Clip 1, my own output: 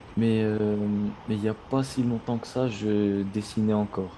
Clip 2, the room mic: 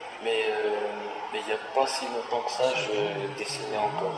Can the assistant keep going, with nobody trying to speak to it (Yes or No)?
No